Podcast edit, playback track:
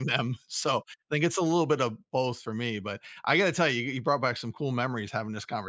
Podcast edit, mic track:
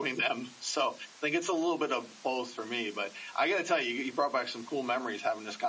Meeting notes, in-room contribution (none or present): none